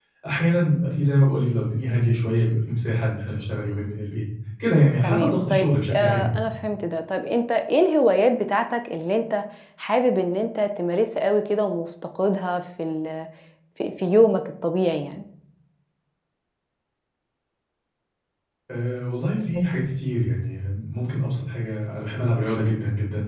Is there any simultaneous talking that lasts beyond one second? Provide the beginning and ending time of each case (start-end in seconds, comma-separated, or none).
5.0-6.4